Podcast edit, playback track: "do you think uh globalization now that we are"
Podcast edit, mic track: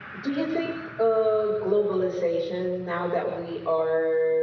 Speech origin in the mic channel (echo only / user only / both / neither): echo only